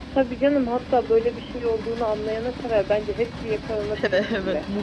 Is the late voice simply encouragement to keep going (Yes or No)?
No